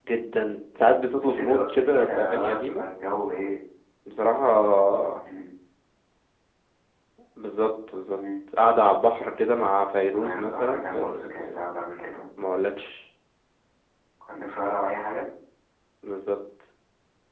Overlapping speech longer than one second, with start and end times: 1.2-2.9, 10.2-11.6

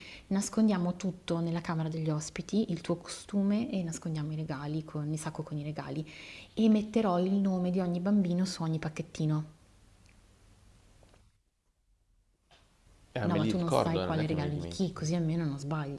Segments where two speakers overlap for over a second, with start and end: 13.3-15.0

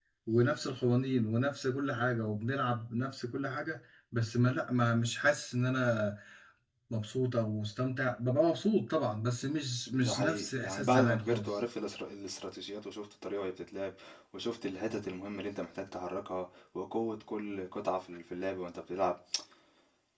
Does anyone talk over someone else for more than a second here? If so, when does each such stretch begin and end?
10.0-11.6

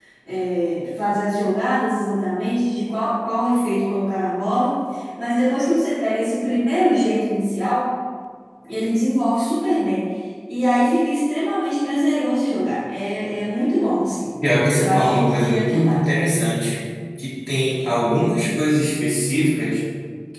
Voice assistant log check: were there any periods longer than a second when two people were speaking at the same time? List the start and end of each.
14.8-16.0

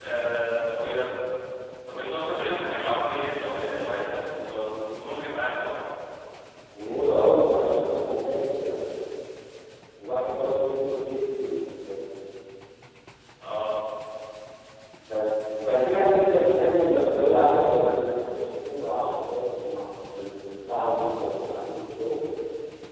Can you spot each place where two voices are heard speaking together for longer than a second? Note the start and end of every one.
none

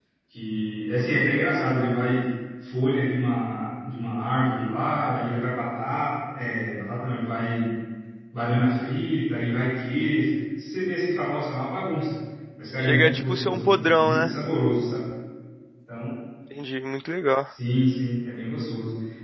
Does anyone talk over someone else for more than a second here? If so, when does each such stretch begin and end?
12.8-14.3

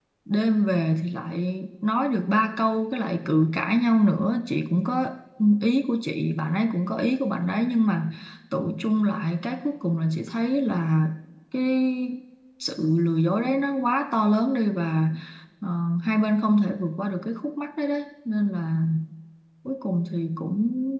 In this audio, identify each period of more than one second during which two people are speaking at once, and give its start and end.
none

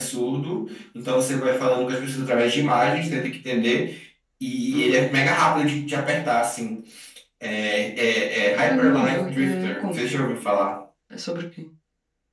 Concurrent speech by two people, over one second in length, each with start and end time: 8.5-10.2

